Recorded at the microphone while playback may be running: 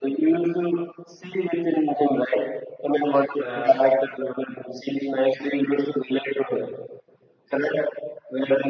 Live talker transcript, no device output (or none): yeah